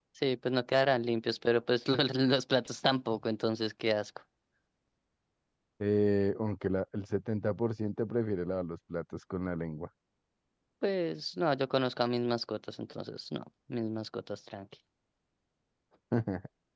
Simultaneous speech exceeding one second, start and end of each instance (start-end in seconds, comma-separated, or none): none